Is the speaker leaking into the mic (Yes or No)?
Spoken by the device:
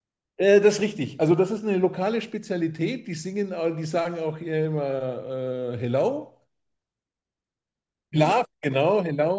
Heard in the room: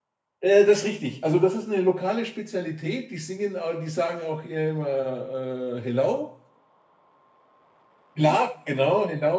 Yes